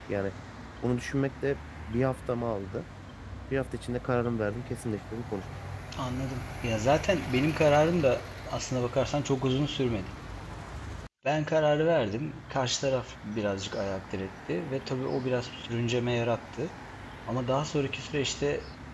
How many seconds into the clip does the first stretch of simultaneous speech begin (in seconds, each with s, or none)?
none